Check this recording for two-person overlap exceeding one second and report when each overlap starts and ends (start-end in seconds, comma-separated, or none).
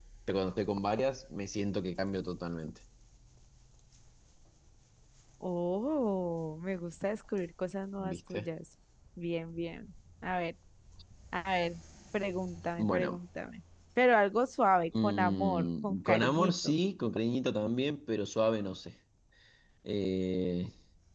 15.0-16.7